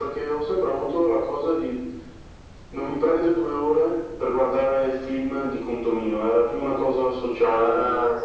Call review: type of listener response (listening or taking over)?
taking over